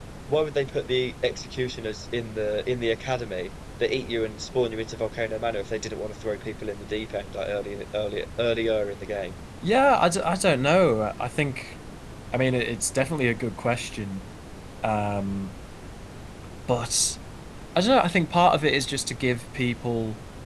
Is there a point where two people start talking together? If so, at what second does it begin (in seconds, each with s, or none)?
none